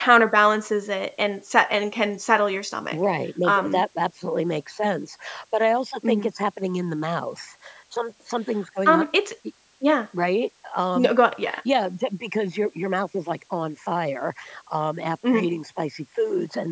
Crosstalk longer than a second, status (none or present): none